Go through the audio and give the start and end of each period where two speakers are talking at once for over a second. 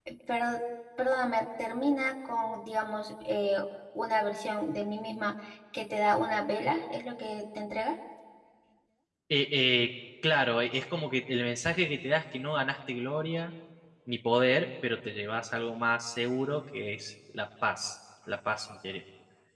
none

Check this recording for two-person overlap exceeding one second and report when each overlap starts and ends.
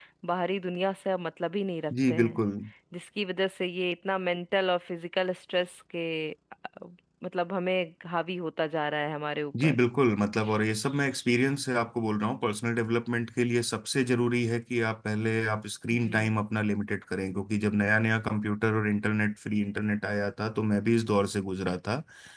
none

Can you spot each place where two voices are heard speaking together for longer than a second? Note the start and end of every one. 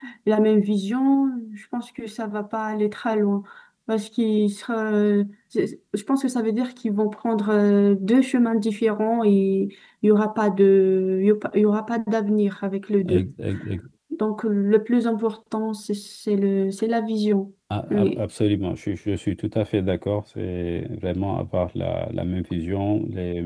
none

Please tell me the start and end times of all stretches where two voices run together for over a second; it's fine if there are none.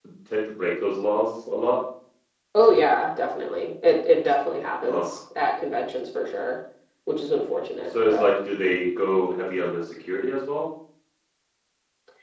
none

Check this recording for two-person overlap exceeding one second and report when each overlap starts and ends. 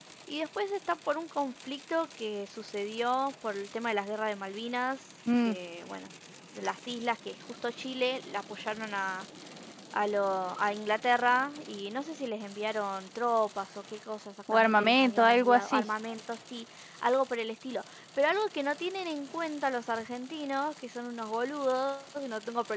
14.5-15.8

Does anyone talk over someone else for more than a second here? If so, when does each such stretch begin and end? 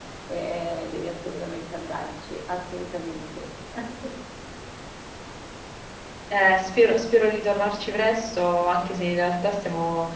none

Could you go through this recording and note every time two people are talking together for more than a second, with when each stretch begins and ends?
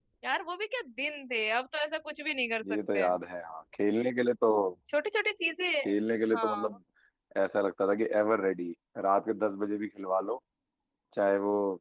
none

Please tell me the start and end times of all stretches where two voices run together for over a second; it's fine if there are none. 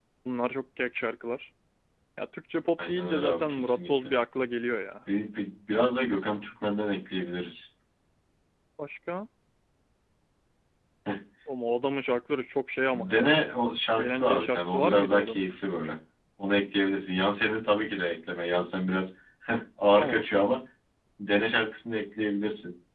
2.9-4.1, 14.0-15.5

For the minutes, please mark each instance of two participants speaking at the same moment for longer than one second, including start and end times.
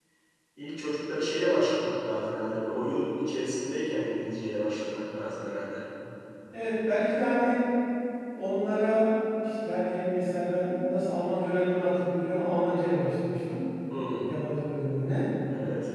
none

